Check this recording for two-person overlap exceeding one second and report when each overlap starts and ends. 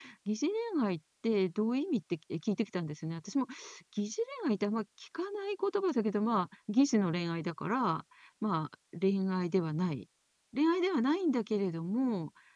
none

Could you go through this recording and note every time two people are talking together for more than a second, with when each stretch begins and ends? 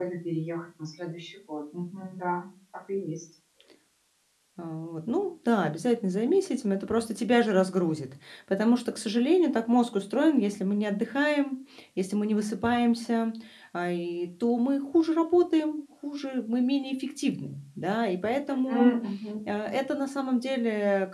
none

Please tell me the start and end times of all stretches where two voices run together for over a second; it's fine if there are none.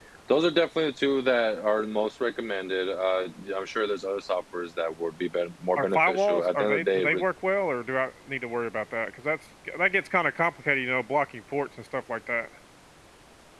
5.8-7.2

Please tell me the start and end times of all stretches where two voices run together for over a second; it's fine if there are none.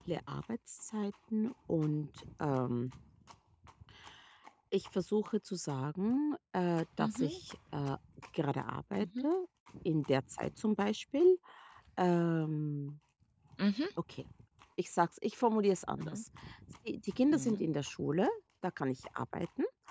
none

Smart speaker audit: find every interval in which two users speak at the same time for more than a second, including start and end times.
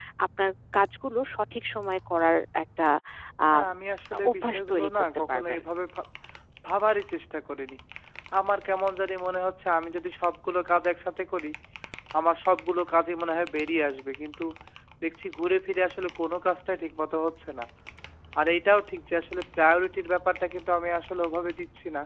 4.3-5.6

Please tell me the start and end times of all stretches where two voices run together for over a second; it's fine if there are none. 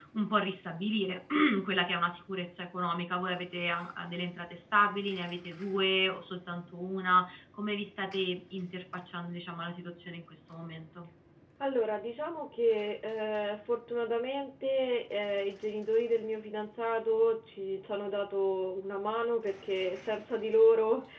none

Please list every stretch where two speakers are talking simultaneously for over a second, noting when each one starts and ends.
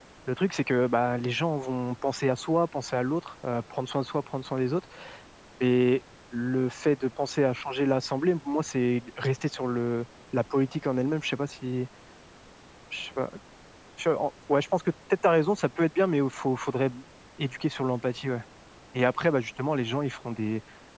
none

